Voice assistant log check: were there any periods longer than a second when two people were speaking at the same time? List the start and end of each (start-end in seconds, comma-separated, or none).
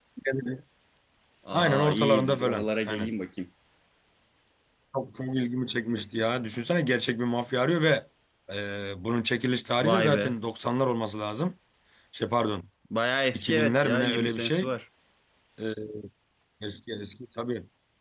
1.5-3.1, 13.3-14.7